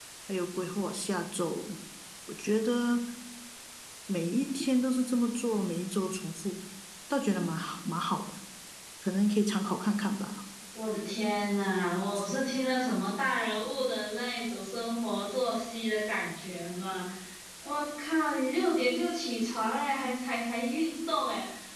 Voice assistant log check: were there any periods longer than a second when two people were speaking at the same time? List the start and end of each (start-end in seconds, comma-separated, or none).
none